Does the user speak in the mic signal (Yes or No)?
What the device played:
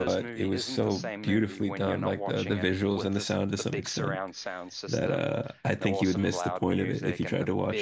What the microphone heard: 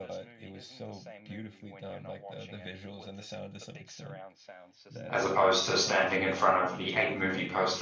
Yes